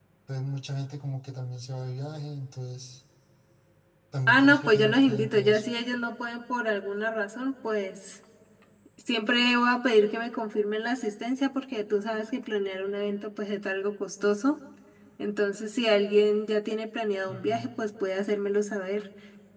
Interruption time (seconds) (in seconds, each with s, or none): 4.3 s